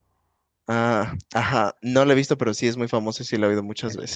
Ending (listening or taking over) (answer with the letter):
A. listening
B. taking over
B